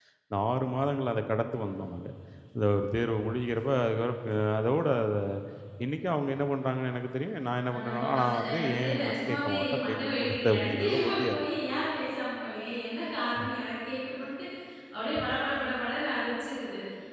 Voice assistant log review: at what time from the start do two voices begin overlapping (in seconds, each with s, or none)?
7.7 s